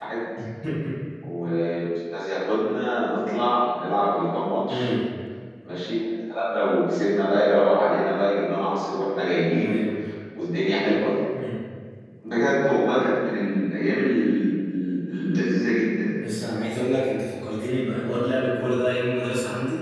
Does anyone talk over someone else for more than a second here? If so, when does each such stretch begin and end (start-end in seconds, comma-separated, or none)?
none